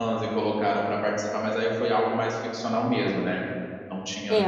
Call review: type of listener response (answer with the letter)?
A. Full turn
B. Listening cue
A